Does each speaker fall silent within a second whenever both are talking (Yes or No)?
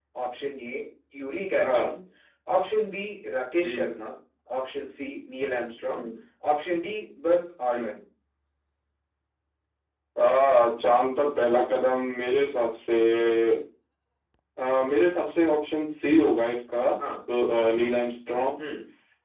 Yes